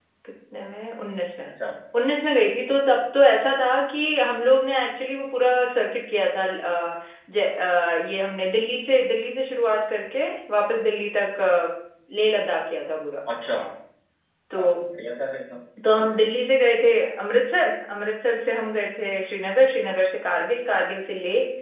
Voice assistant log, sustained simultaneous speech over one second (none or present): none